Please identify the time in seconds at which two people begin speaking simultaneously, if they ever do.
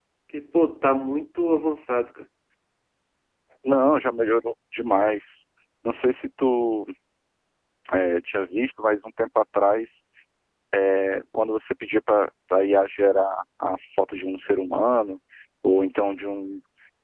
none

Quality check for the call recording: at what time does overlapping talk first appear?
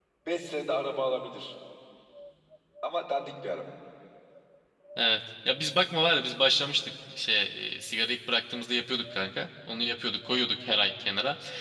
none

